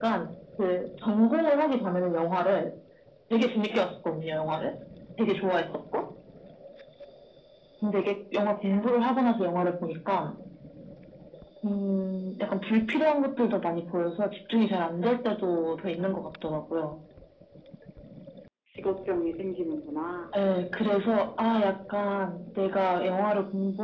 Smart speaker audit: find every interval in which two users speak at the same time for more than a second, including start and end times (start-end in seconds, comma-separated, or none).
none